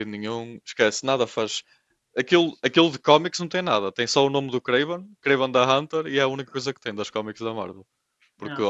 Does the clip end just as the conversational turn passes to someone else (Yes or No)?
No